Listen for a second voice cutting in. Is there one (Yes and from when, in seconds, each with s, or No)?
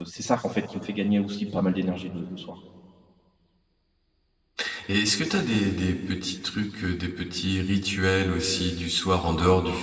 No